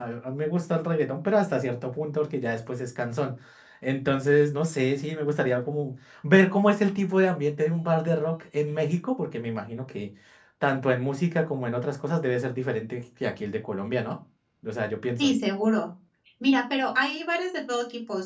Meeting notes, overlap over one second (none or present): none